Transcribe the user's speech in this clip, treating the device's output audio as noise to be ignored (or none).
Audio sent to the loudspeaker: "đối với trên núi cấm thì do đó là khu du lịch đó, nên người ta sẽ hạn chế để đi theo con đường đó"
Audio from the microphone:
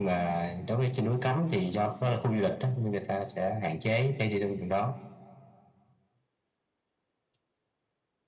none